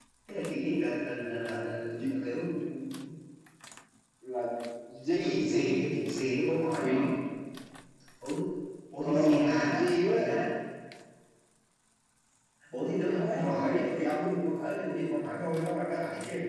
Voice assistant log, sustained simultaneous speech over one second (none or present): present